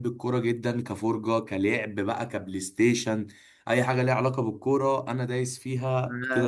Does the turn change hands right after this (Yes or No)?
Yes